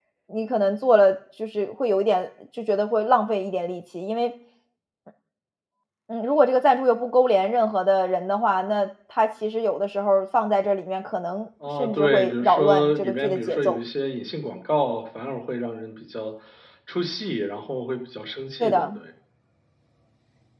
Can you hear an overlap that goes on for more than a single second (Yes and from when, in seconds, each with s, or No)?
Yes, from 11.8 s